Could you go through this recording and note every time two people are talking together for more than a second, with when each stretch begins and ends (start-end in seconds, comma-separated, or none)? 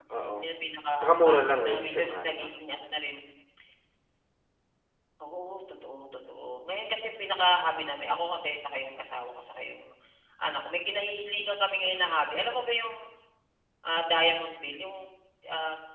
1.0-2.5